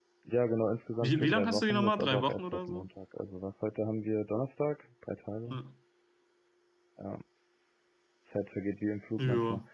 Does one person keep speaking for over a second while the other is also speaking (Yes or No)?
Yes